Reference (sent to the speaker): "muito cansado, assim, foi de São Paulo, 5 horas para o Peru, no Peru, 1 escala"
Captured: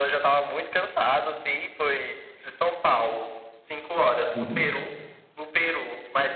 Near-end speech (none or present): present